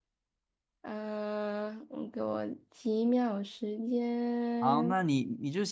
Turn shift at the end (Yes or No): Yes